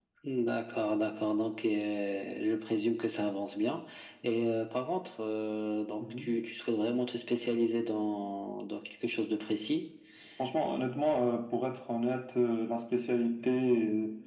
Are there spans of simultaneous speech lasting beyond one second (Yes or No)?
No